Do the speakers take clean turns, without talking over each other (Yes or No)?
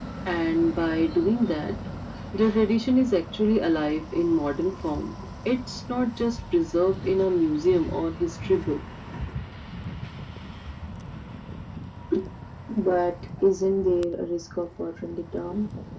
Yes